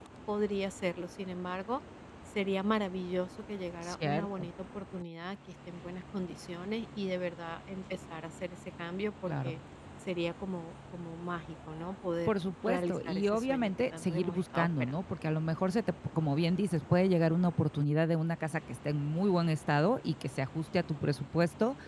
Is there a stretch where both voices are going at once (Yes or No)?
Yes